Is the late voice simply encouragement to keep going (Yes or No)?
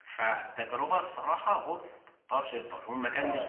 No